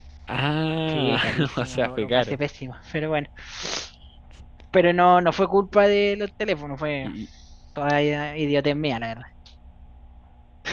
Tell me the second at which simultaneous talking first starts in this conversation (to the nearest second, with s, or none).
1 s